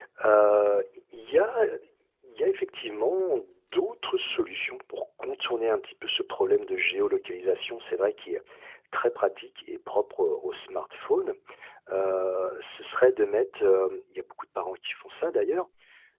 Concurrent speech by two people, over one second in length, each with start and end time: none

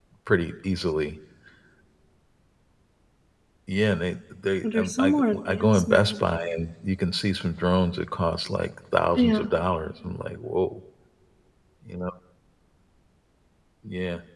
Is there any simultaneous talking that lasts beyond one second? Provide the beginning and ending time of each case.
4.6-6.1

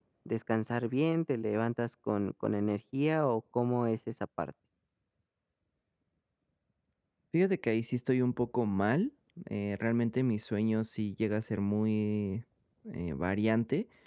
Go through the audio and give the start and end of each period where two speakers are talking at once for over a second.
none

